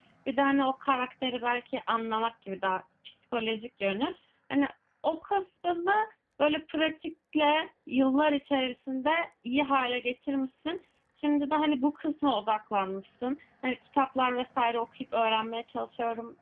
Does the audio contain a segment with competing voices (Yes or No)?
No